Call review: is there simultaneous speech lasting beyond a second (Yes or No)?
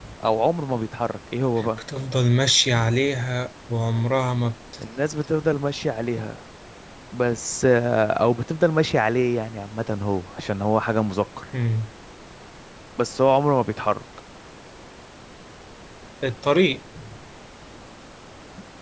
No